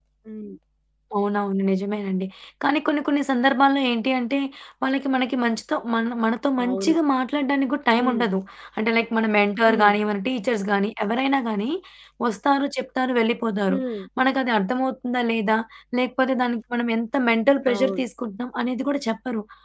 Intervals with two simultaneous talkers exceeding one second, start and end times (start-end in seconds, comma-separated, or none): none